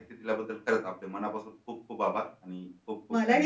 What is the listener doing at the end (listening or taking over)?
taking over